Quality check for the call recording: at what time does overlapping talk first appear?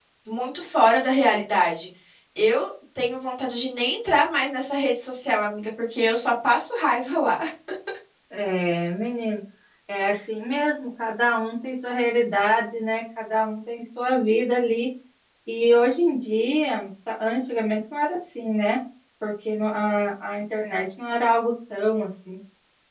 none

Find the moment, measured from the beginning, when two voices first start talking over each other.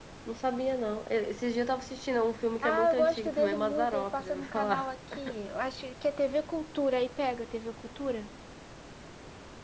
3 s

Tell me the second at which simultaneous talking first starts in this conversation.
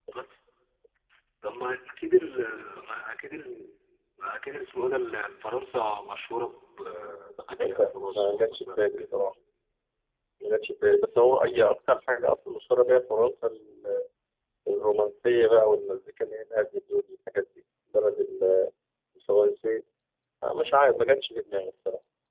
8 s

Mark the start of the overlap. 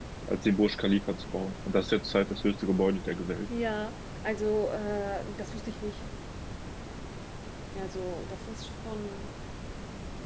none

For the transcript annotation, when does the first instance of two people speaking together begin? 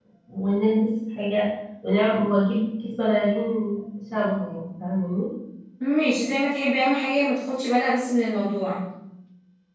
none

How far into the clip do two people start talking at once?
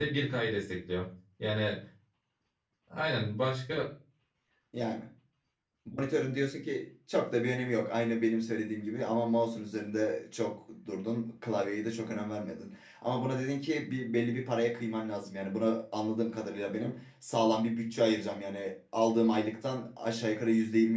none

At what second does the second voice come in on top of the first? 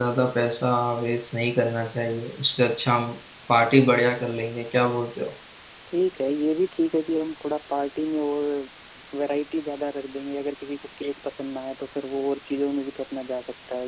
none

